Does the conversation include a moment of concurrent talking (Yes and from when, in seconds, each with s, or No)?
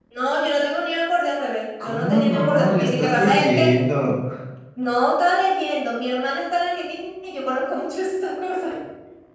Yes, from 1.8 s